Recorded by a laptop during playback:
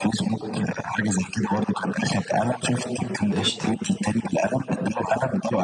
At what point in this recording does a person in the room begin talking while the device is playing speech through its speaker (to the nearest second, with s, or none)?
3 s